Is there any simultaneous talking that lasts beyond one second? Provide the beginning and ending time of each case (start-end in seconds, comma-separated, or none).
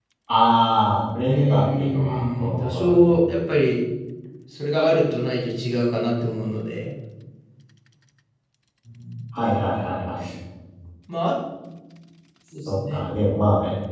1.3-3.1